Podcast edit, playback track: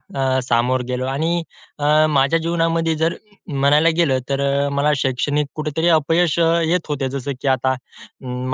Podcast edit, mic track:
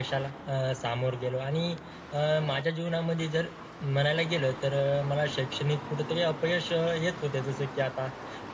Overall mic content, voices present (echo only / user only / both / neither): echo only